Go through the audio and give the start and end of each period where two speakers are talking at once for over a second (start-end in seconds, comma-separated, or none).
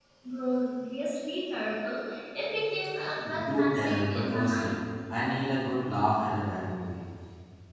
3.4-4.8